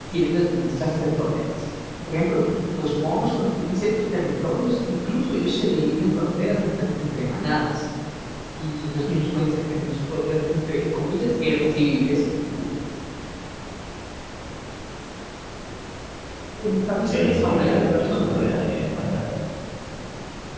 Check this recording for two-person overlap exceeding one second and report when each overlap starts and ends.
17.1-18.6

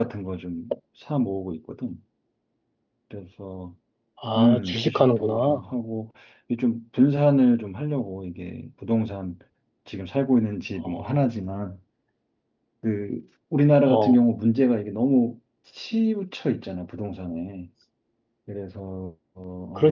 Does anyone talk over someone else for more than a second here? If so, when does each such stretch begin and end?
4.4-5.6

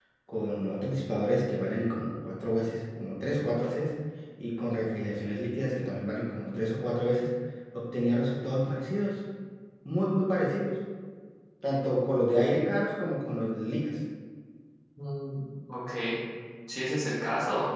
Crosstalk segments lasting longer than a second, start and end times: none

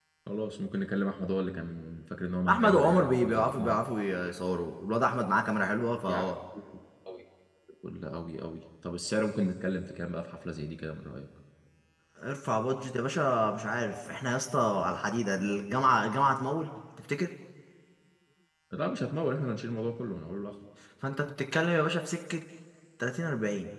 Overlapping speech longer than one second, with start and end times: 2.5-3.8

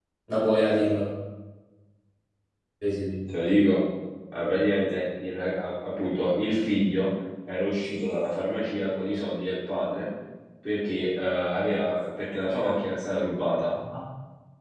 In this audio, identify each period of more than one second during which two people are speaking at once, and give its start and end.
none

